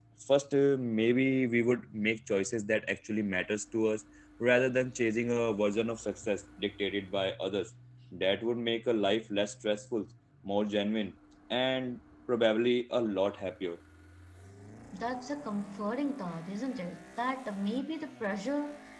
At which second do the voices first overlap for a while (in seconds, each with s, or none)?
none